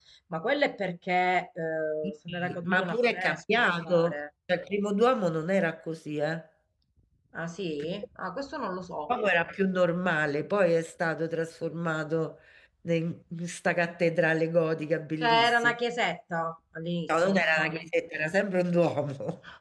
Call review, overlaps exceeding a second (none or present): present